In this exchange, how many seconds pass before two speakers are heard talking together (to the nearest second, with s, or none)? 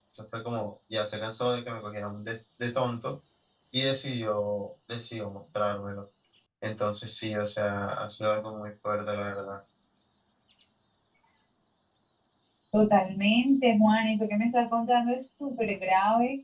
none